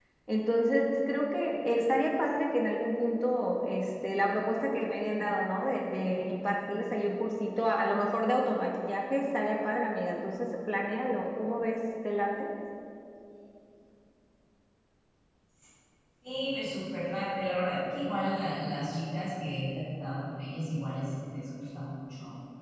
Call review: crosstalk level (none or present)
none